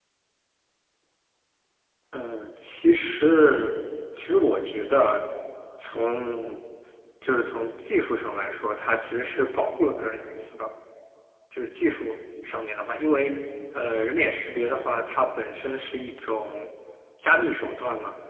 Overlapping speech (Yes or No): No